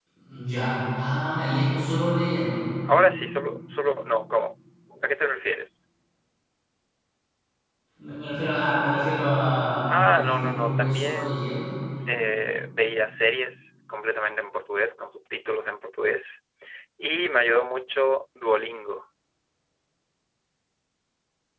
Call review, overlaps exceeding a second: present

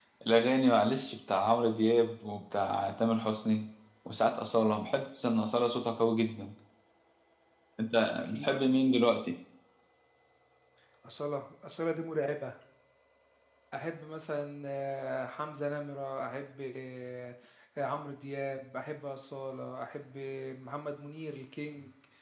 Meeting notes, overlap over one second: none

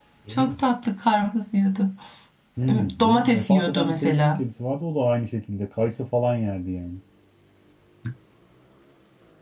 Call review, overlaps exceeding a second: present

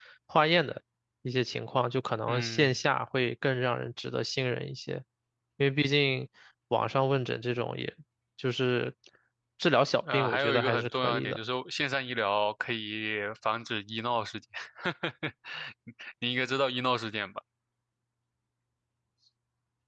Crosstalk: present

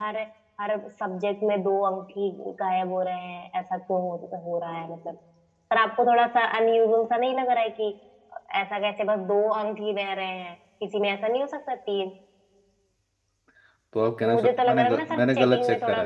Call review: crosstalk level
present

